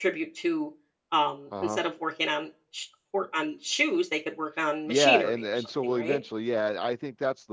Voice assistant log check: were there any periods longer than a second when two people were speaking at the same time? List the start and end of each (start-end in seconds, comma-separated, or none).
4.9-6.2